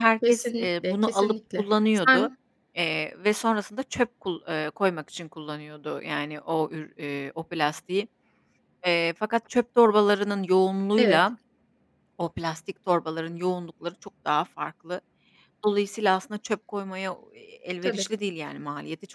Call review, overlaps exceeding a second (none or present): present